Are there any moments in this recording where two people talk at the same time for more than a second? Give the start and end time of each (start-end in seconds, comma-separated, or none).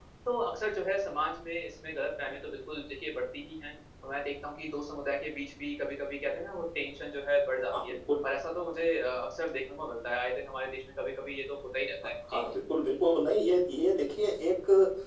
none